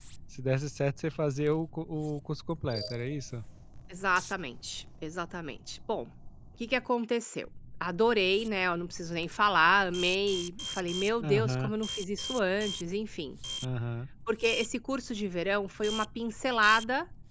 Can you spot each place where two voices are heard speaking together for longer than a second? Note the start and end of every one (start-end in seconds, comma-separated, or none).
none